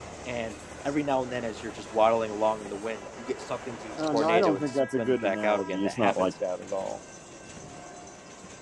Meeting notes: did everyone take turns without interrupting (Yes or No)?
No